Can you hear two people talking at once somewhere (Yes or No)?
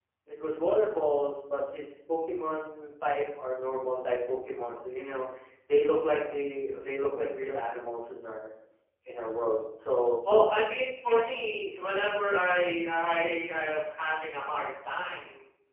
No